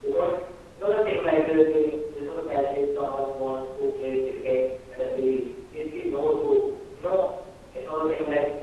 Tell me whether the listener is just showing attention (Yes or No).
Yes